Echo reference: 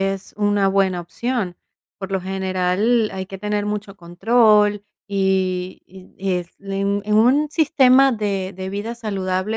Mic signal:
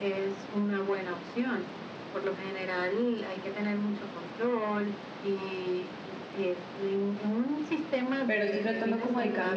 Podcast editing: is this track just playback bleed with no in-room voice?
No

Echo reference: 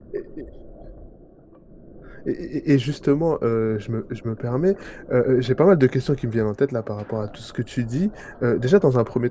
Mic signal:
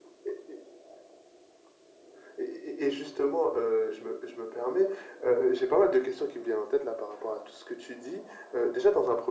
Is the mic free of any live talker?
Yes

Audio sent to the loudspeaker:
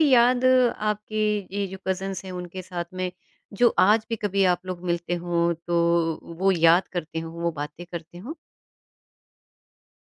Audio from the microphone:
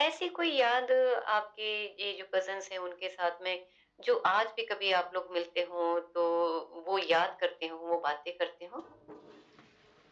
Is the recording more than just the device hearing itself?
No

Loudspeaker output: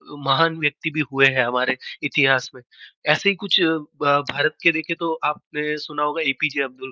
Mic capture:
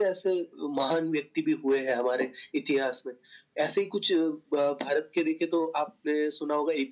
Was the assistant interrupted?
No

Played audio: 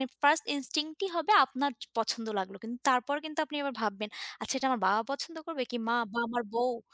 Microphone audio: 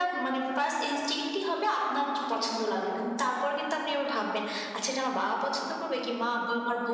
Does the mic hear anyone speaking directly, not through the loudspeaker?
No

